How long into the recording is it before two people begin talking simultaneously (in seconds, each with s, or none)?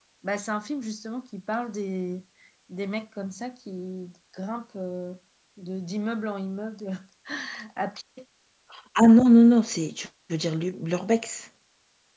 none